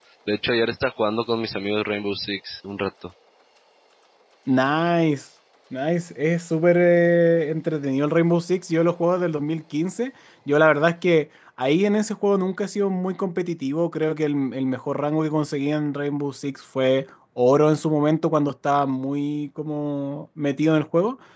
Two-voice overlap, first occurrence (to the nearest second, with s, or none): none